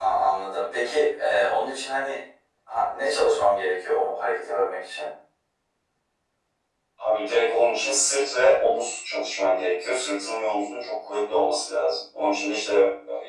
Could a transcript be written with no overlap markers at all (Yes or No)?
Yes